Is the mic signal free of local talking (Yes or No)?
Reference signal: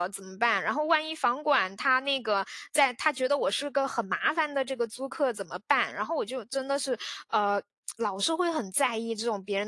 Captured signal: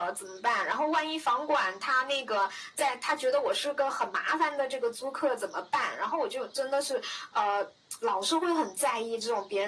Yes